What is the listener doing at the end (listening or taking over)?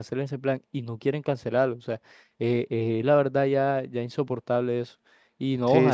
listening